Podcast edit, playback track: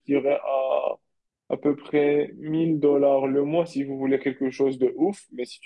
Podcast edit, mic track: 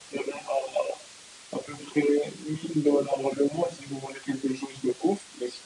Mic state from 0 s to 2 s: echo only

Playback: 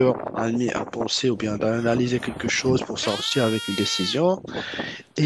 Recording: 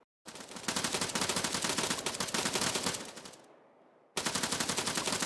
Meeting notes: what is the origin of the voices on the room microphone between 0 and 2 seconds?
neither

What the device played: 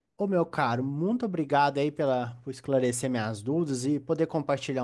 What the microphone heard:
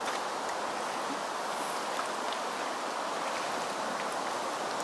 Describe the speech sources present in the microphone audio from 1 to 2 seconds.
neither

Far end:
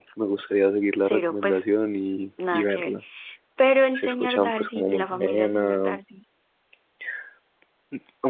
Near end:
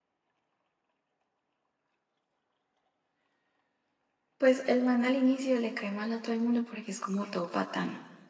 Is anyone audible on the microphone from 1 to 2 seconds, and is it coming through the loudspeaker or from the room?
neither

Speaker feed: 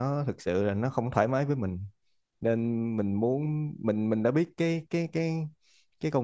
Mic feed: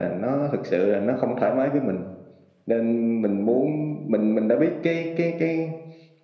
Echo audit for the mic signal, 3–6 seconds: echo only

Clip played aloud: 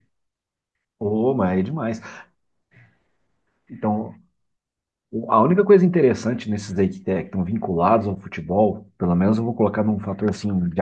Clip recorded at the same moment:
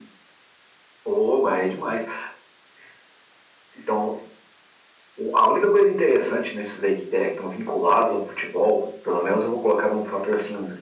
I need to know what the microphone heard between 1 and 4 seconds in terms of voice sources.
echo only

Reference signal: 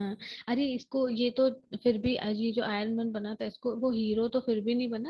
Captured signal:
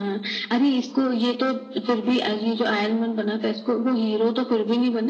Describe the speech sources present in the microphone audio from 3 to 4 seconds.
echo only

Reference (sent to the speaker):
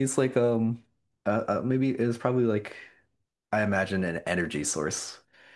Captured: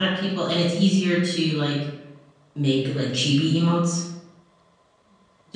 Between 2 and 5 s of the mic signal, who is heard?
user only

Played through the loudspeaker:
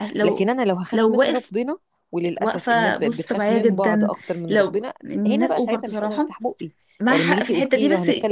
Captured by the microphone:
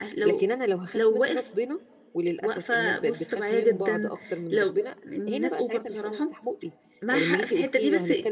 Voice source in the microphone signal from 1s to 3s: echo only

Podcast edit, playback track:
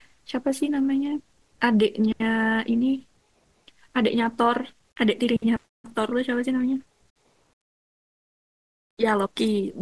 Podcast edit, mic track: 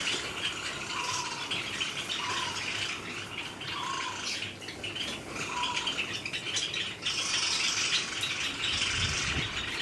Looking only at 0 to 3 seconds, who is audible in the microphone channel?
neither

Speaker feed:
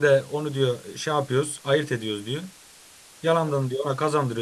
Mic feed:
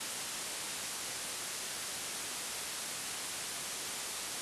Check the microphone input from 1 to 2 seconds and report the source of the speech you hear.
neither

